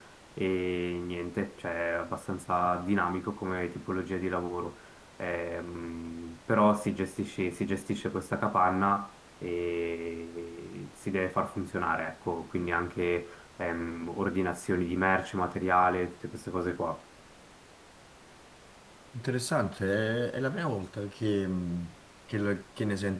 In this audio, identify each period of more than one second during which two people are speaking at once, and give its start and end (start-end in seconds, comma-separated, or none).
none